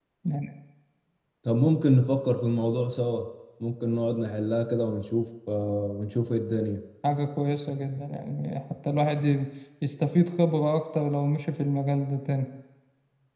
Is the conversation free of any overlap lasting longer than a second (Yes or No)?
Yes